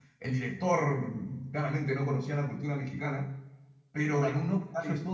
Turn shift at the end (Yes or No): No